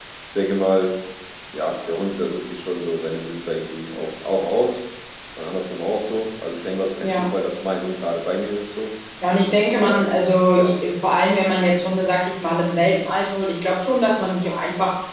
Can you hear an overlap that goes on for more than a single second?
No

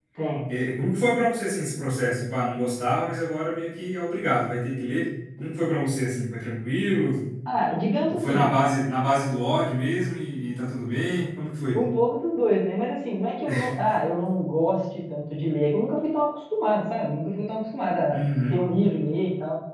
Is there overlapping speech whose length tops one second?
No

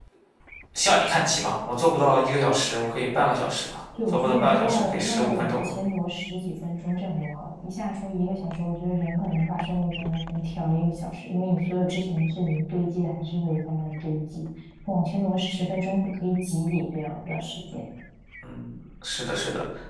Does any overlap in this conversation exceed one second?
Yes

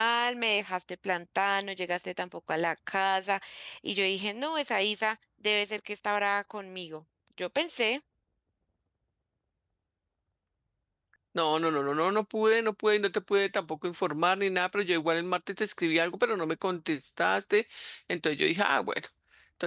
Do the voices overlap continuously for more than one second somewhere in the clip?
No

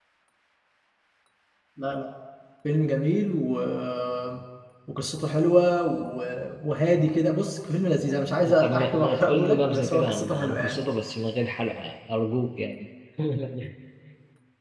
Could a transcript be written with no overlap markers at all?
No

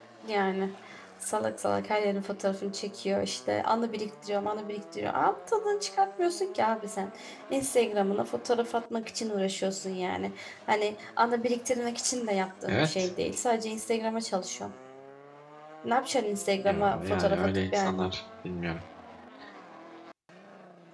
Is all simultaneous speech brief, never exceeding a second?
No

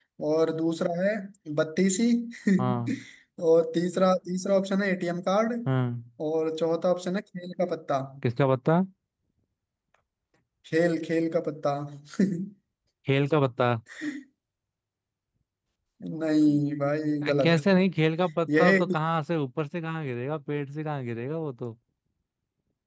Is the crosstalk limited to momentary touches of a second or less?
Yes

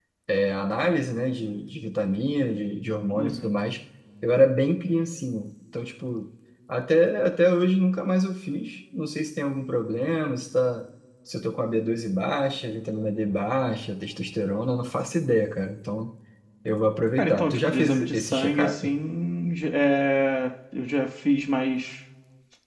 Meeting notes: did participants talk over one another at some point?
Yes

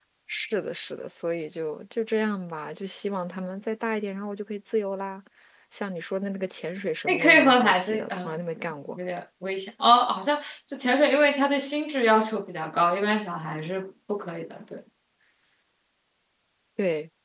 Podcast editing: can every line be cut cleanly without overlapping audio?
No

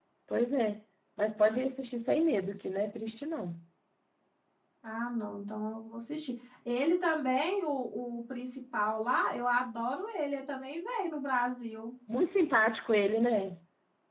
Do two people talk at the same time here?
No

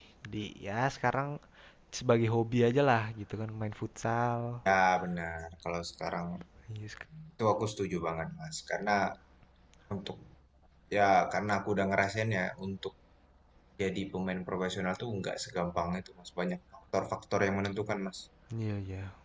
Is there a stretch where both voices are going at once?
No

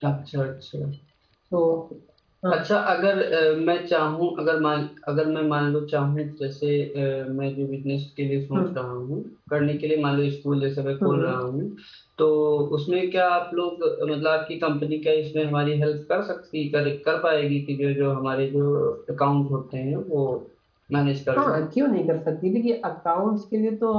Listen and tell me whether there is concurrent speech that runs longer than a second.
No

